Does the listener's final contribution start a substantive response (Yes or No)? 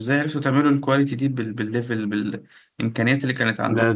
Yes